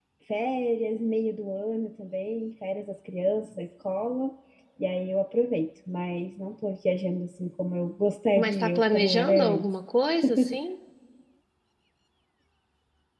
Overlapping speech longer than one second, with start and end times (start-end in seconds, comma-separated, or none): 8.4-9.6